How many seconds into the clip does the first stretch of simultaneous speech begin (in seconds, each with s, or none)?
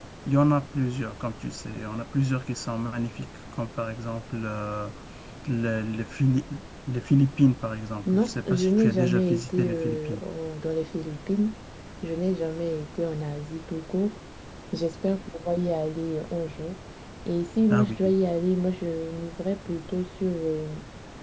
8.1 s